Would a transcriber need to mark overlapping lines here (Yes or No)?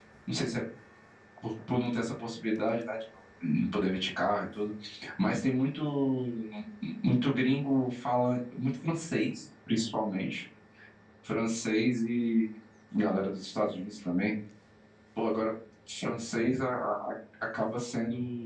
No